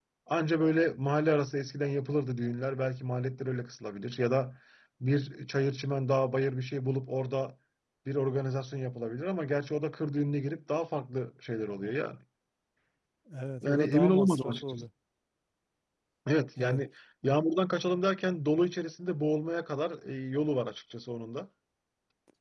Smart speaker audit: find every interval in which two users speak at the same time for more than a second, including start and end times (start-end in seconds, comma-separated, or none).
13.6-14.8